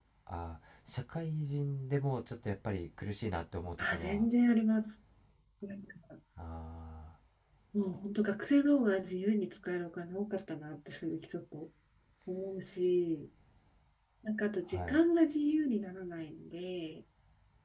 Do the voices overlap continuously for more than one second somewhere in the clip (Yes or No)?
No